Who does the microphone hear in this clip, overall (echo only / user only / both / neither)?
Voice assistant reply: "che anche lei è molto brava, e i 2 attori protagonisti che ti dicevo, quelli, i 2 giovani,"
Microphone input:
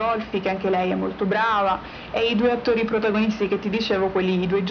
echo only